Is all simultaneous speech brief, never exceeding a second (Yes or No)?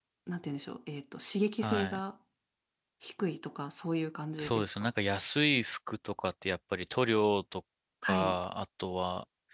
Yes